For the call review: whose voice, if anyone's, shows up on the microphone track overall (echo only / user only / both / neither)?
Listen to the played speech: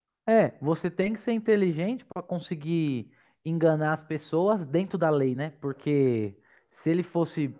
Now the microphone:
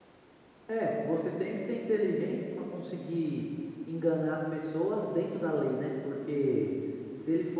echo only